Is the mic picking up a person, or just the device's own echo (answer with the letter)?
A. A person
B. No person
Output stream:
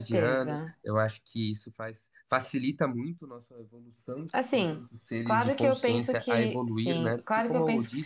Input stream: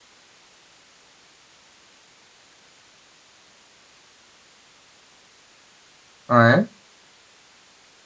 A